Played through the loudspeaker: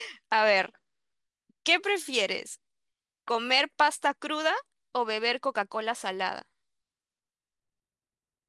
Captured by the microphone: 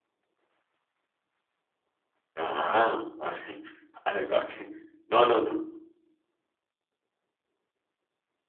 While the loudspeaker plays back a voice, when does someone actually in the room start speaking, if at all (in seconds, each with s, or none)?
2.4 s